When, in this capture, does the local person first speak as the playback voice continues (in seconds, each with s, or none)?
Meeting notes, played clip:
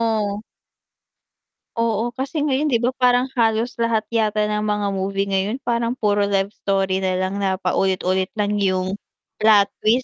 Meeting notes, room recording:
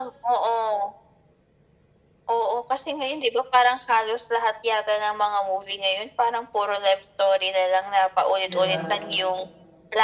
8.4 s